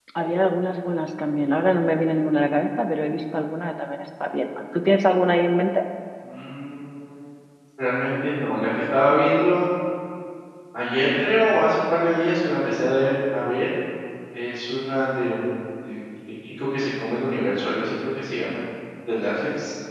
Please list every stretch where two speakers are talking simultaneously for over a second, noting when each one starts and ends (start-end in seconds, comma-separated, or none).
none